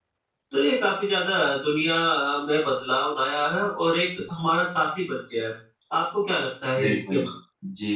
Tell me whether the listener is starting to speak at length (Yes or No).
Yes